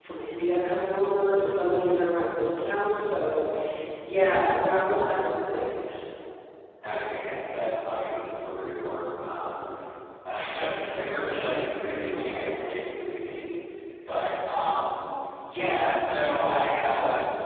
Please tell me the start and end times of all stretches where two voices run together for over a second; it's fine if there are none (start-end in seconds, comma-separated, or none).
none